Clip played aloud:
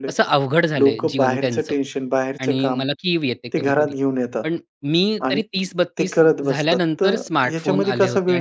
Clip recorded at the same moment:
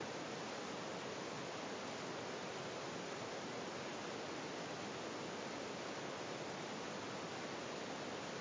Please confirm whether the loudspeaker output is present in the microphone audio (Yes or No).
No